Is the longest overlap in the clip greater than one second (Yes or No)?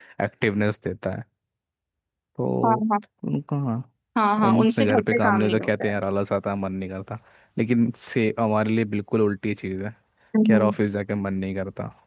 Yes